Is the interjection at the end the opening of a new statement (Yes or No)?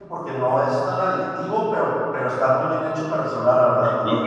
Yes